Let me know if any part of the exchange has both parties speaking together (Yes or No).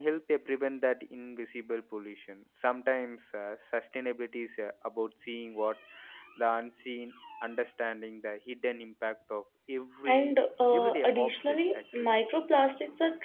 Yes